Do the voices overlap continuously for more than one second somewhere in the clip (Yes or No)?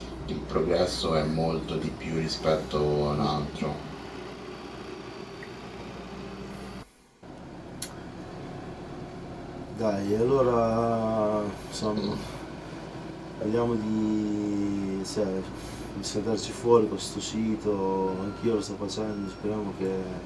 No